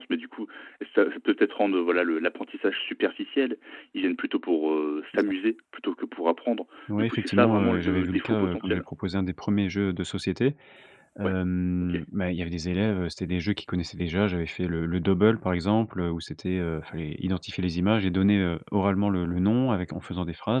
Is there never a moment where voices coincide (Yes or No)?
No